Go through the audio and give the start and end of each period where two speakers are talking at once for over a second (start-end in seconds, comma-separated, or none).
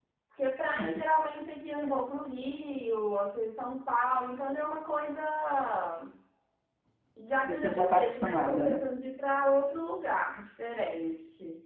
7.4-8.8